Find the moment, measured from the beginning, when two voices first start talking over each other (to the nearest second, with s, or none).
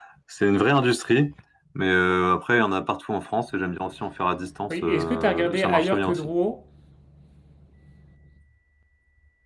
5 s